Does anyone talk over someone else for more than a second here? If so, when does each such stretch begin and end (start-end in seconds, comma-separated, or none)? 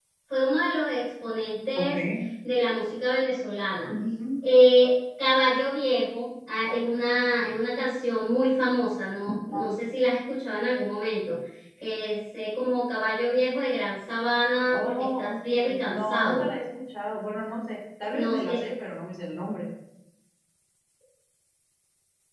14.7-16.5